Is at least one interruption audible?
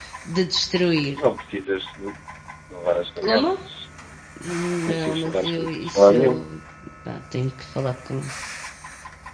Yes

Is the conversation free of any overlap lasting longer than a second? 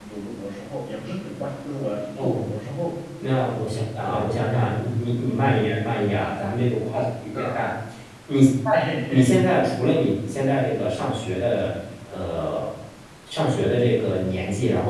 Yes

